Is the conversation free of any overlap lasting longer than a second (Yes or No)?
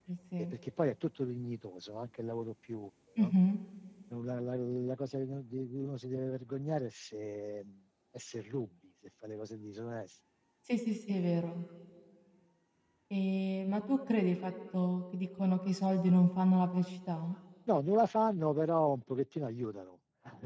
Yes